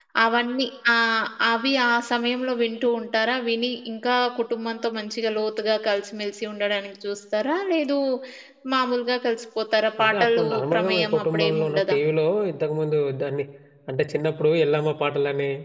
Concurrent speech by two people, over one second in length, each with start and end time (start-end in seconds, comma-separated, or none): 10.0-12.0